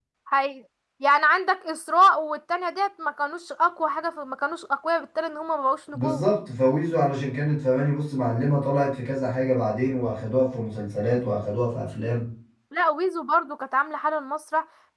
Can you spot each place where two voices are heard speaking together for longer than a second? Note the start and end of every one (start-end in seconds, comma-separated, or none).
none